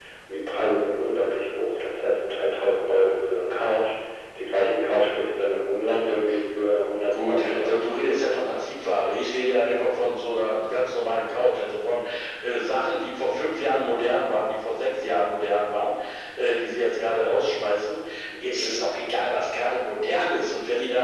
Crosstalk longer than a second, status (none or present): present